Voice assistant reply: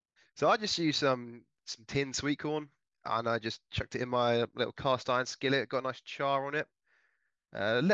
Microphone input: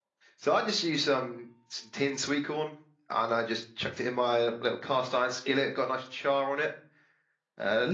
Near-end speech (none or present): none